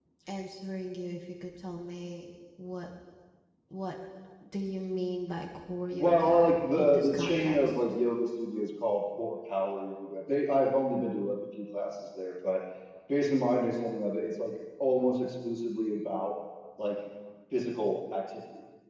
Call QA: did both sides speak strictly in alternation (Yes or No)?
No